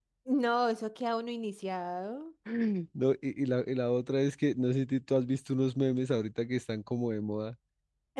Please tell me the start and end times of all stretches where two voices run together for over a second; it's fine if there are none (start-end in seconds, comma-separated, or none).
none